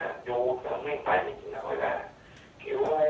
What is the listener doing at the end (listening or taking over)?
taking over